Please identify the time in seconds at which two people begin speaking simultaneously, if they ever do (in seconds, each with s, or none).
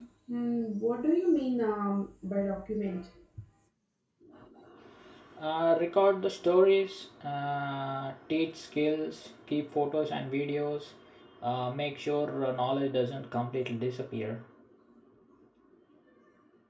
none